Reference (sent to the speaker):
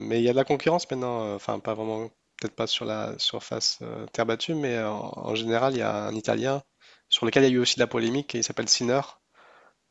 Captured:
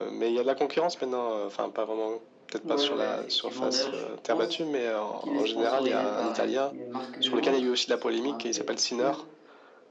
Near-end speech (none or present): present